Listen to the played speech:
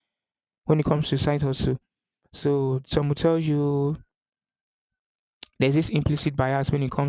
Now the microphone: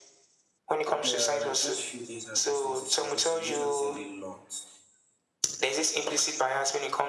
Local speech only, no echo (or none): There are just few things I just need to say because you've literally said a lot,